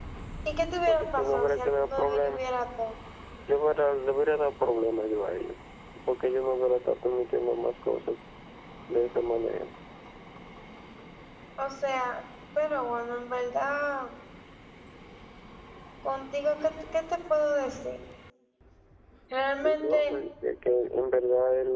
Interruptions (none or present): present